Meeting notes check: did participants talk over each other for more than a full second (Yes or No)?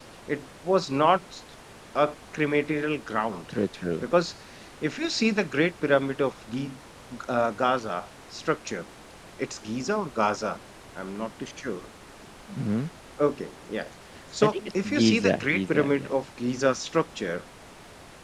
Yes